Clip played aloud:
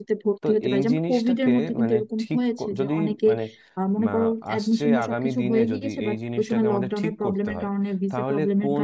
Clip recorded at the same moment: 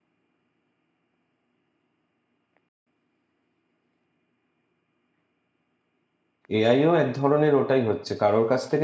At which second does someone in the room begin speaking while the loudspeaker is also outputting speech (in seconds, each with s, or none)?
6.6 s